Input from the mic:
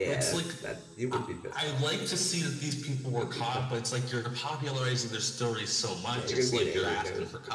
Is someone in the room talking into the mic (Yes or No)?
Yes